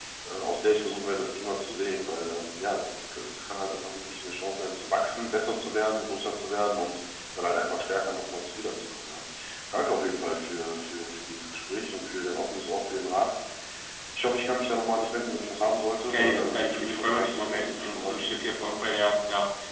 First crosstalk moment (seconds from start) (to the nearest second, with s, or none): 16 s